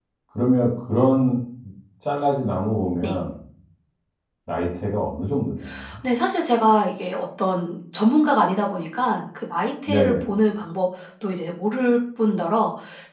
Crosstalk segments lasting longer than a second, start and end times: none

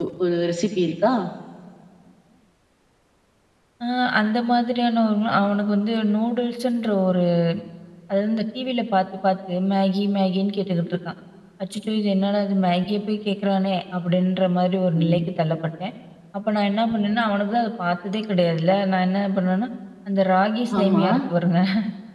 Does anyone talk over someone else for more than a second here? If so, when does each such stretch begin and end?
none

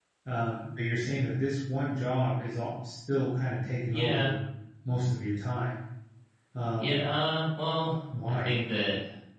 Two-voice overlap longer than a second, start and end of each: none

